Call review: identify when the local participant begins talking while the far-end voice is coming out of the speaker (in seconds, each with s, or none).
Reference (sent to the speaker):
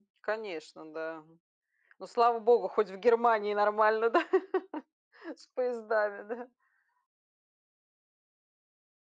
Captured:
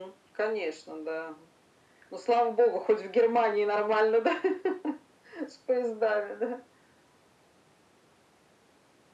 none